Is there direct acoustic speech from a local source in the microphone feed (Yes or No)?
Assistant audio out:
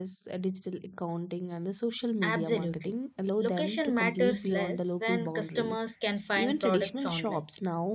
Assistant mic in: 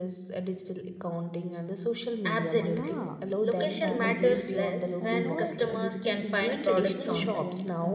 Yes